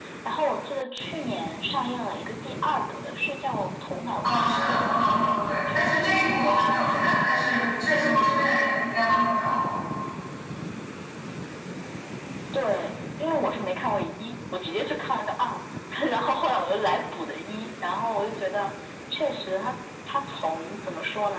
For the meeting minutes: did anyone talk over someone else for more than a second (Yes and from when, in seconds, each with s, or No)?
Yes, from 4.2 s